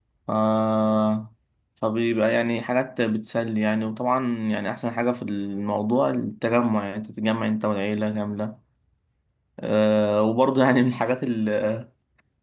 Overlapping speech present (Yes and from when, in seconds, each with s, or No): No